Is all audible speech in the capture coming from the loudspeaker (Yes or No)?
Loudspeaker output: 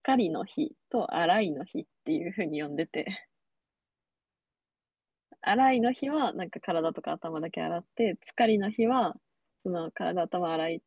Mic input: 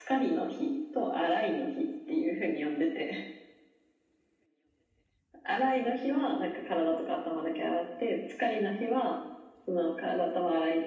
Yes